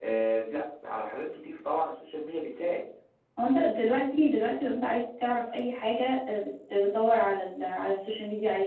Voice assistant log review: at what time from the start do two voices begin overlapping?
none

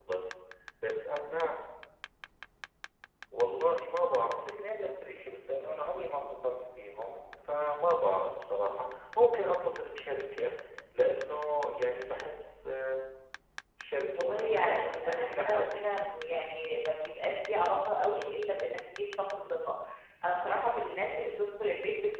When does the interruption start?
14 s

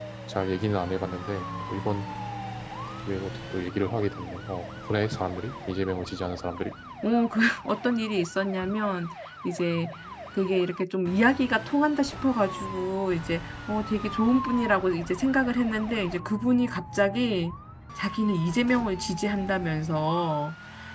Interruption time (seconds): none

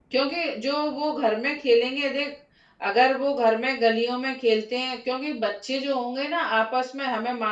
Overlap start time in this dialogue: none

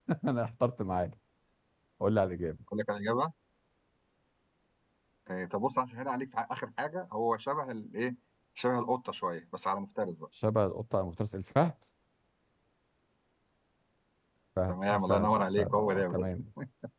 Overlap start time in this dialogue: 15 s

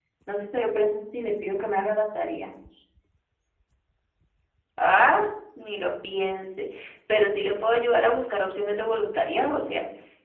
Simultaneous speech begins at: none

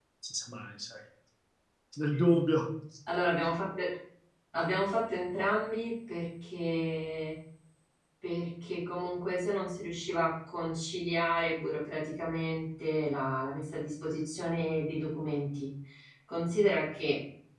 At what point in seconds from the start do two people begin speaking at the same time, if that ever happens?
none

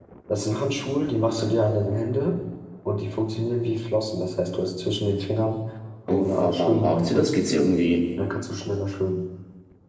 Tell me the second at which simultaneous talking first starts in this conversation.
6 s

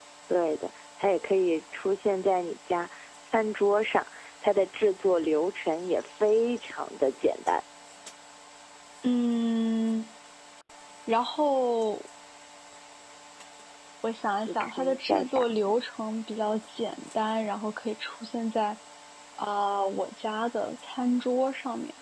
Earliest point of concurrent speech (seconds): 14 s

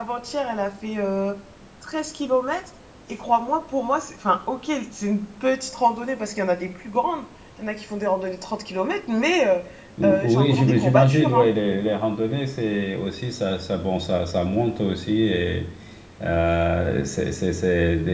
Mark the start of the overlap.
10 s

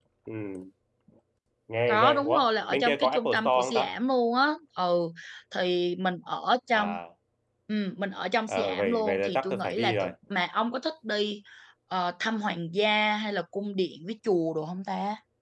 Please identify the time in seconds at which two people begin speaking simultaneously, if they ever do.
2 s

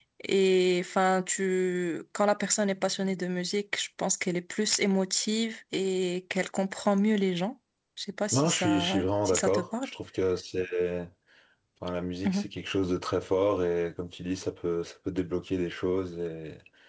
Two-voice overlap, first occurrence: 8 s

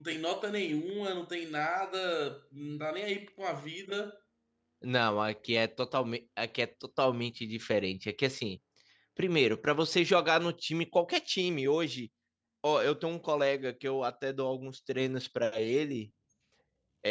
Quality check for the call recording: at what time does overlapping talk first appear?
none

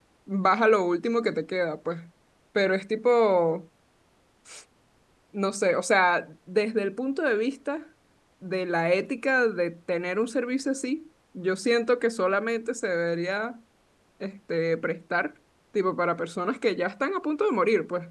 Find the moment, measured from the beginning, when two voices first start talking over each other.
none

